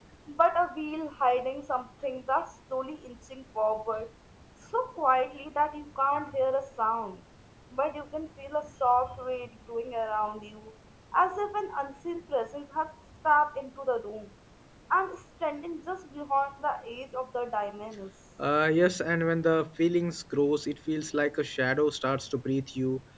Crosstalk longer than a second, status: none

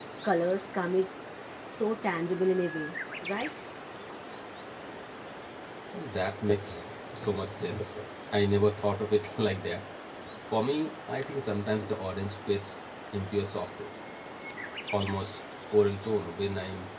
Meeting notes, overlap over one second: none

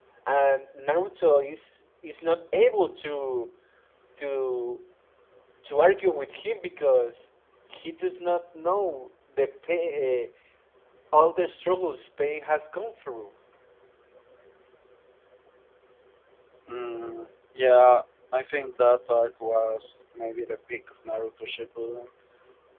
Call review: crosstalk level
none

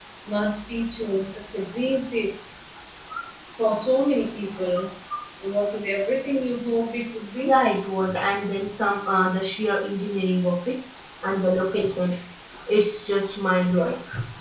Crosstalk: none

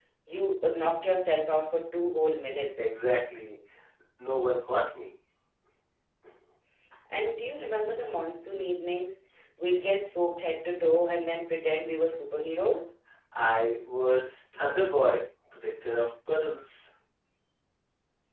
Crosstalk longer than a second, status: none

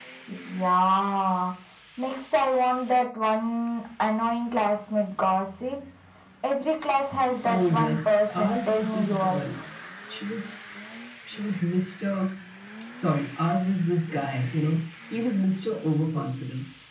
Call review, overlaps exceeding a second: present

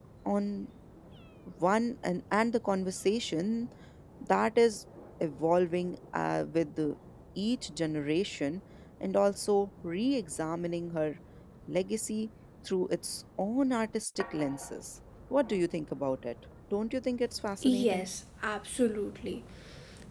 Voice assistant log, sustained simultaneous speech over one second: none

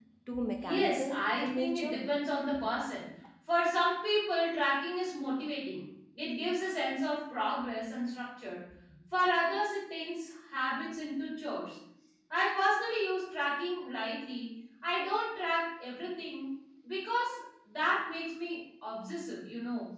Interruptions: present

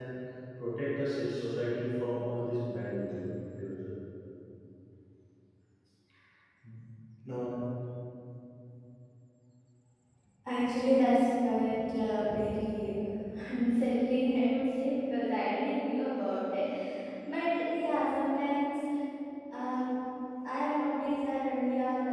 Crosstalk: none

